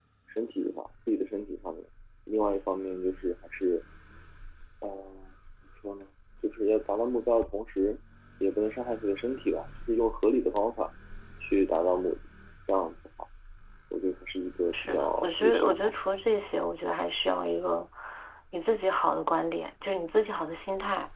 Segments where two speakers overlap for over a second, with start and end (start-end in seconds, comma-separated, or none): 14.7-15.9